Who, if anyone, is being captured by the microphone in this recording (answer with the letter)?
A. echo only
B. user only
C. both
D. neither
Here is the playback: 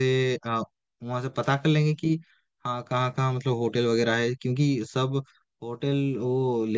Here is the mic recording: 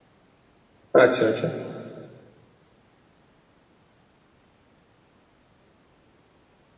B